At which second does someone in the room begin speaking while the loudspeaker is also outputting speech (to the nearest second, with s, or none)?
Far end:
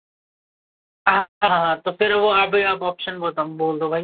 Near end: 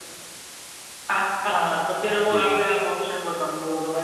2 s